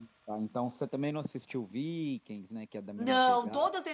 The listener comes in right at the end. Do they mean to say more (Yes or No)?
Yes